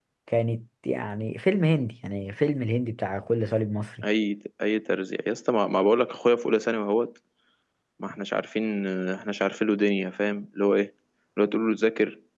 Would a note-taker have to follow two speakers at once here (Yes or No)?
No